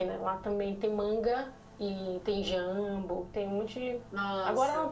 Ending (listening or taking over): listening